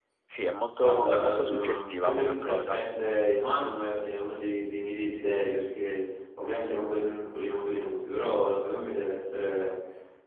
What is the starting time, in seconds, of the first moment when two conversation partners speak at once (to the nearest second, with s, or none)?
1 s